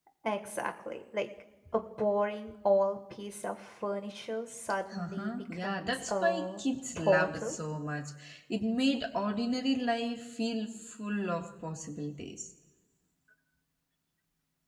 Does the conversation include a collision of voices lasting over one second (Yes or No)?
Yes